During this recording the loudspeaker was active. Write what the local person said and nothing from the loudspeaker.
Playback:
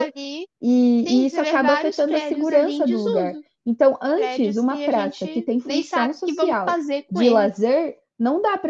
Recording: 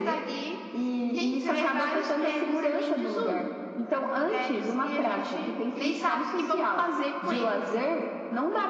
none

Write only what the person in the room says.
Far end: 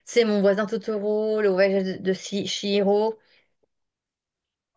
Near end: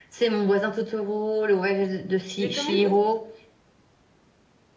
les comédies.

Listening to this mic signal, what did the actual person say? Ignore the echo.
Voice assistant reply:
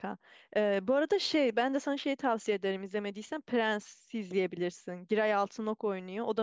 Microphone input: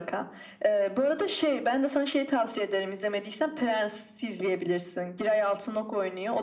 none

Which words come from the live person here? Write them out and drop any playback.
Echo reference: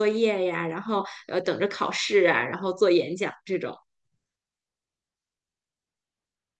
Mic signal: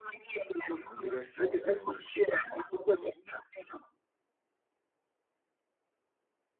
可能比较小的专业？

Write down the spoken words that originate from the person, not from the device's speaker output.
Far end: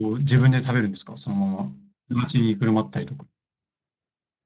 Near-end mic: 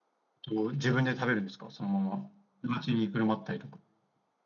none

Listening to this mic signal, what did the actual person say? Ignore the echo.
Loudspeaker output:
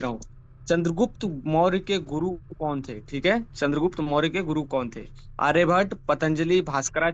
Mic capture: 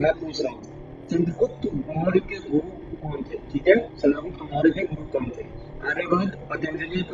none

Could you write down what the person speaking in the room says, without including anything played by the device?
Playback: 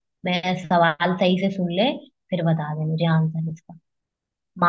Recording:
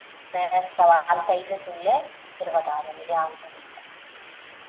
none

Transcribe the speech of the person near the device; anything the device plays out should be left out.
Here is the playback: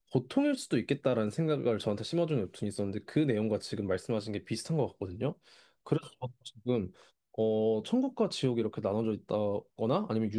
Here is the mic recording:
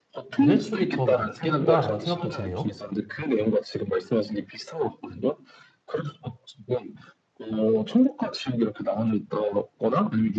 윤회 쪽이 더 맞겠다라는 생각도 드네요.

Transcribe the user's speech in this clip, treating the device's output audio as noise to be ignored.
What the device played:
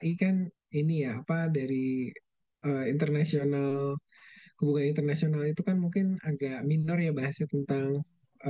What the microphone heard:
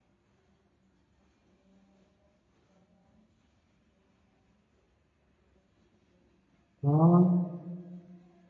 Oh,

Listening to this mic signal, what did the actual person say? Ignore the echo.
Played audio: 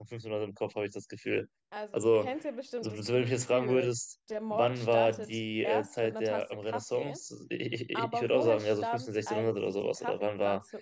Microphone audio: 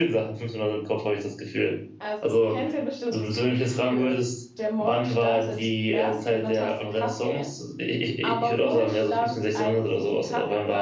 none

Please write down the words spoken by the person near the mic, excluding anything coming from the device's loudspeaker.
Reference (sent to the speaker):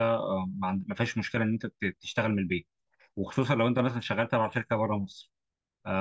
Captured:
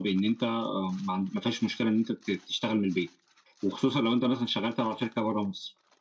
none

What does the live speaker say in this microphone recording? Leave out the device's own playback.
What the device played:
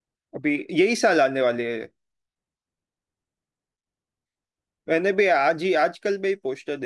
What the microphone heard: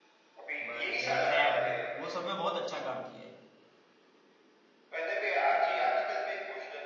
बाद में ट्रैप्ड वो सब में बहुत अच्छा काम किया है

